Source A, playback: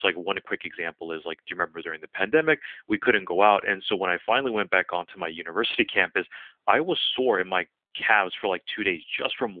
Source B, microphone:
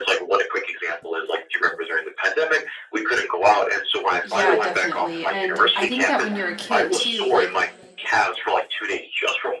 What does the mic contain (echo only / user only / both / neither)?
both